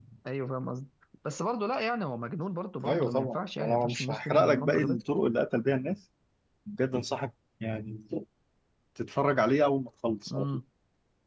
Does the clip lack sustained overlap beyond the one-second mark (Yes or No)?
No